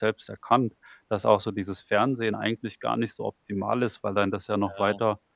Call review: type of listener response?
listening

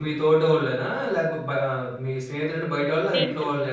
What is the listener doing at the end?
taking over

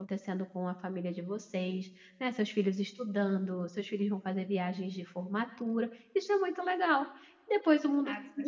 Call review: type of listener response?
taking over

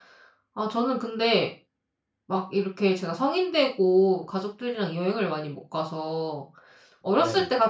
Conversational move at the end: listening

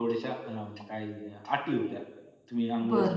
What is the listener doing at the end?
taking over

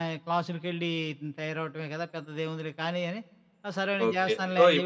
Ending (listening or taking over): taking over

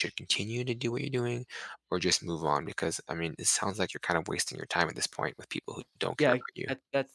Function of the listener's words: taking over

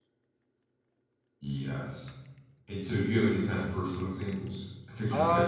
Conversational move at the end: taking over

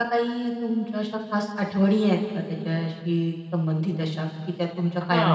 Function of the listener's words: taking over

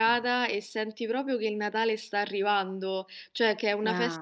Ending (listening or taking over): listening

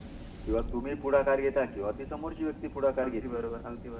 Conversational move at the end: taking over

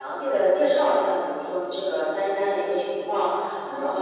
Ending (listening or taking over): listening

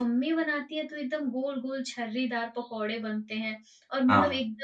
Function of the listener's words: listening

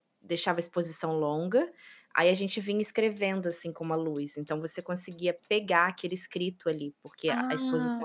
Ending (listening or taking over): taking over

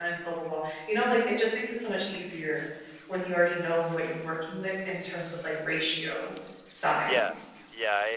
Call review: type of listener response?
taking over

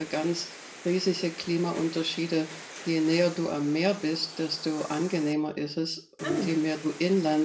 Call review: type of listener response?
listening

